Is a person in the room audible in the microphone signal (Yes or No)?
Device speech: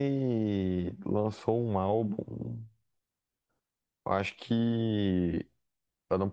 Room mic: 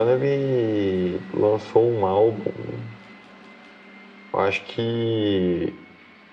No